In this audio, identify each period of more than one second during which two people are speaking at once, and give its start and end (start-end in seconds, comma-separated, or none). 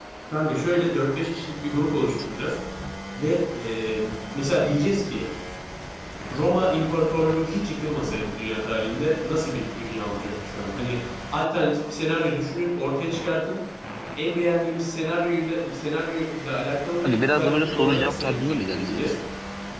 17.0-19.1